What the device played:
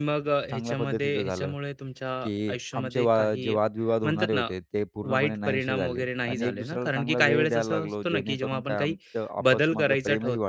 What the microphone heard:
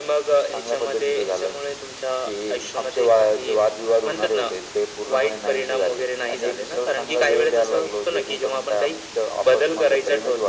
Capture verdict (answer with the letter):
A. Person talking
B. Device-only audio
B